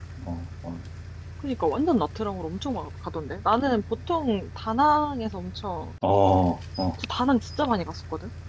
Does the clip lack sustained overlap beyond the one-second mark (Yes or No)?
Yes